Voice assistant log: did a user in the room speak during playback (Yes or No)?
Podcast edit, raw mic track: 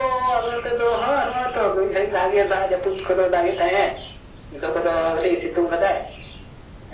No